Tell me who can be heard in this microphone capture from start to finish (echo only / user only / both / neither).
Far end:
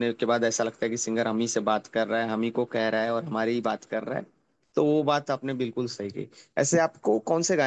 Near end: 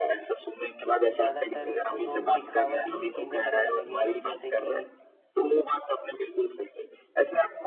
both